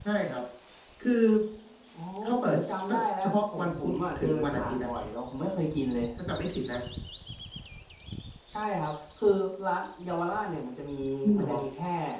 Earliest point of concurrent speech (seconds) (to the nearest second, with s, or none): 2 s